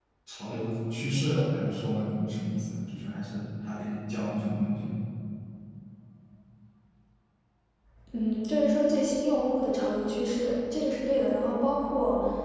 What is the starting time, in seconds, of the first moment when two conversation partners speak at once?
none

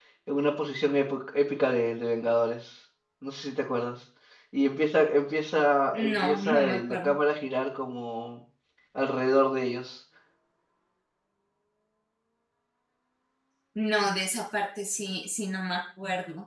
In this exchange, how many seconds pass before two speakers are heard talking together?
5.9 s

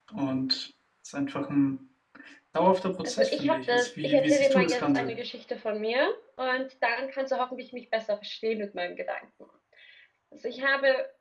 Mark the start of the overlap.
3.0 s

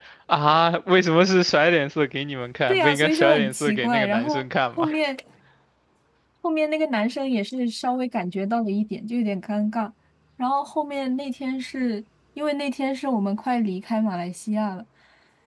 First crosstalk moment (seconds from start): 2.7 s

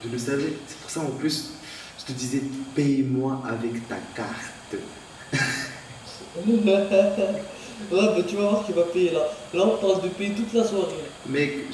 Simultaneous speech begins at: none

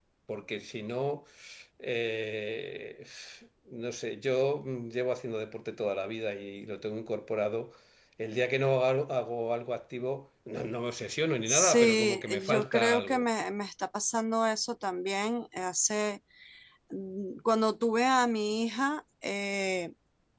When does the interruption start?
11.5 s

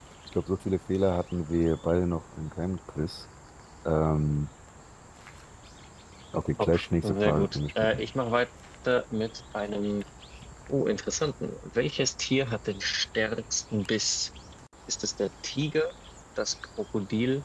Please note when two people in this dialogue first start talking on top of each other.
6.6 s

